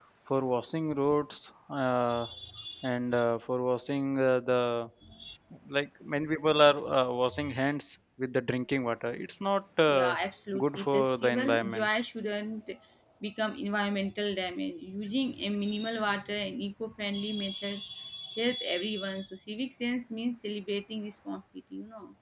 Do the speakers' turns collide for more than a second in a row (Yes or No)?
Yes